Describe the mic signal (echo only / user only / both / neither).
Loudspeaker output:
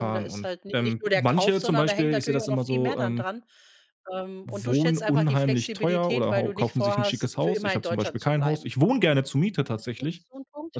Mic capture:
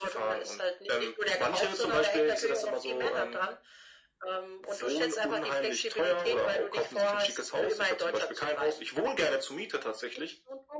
echo only